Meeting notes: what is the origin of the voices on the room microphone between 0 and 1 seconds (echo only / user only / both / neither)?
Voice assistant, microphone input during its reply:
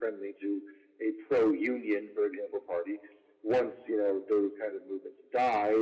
echo only